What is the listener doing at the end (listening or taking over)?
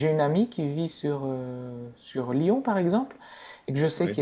listening